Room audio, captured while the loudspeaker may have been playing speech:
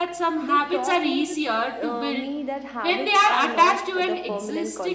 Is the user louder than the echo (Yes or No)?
Yes